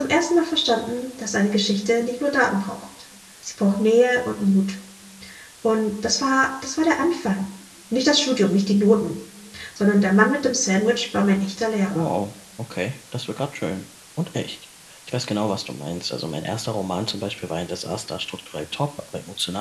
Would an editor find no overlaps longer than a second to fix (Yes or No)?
Yes